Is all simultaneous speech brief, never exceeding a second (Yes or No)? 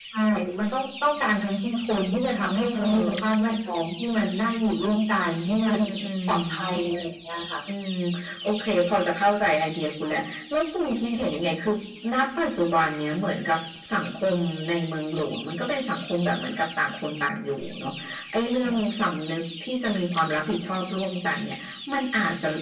Yes